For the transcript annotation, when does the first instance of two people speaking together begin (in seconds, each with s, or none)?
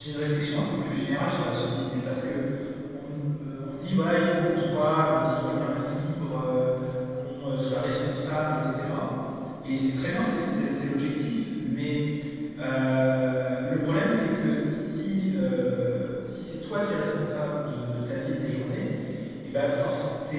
none